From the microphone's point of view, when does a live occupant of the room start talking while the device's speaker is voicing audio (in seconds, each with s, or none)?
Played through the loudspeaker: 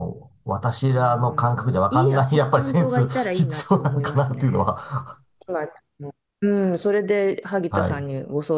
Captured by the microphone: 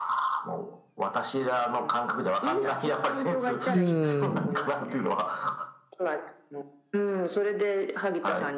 3.7 s